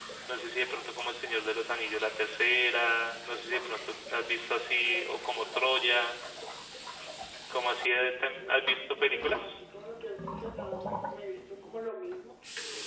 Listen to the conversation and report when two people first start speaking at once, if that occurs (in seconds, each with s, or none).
4.8 s